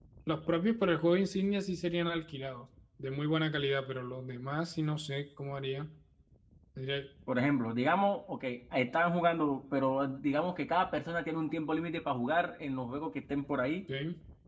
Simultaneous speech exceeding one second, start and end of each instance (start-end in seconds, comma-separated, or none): none